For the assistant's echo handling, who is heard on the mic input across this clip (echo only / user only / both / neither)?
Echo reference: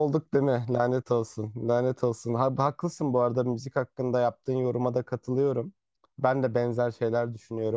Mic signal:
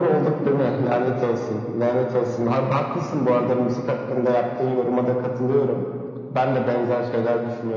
echo only